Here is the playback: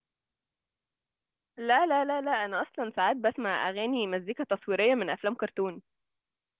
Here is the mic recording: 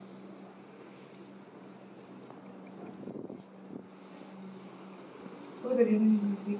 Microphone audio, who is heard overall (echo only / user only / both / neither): user only